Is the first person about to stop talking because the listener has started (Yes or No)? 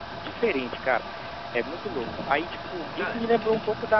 No